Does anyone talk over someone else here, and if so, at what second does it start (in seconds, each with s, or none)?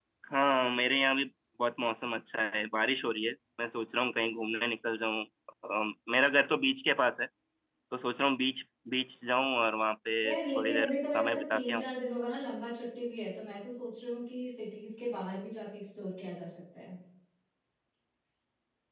10.2 s